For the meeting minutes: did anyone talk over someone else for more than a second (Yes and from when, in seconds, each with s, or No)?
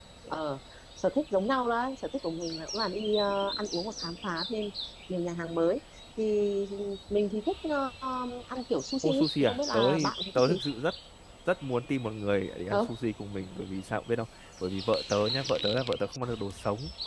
Yes, from 9.0 s